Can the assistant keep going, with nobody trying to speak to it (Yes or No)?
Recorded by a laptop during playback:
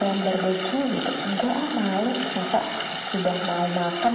Yes